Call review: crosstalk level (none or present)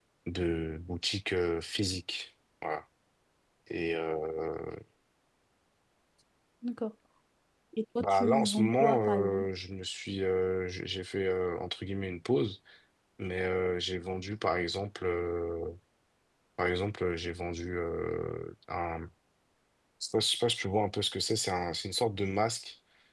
present